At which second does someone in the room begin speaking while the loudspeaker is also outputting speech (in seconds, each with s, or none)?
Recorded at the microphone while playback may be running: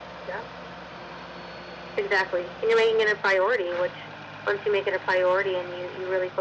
none